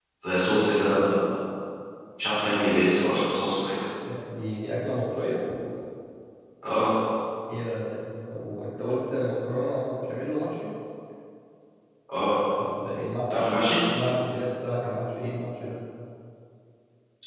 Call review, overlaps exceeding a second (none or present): none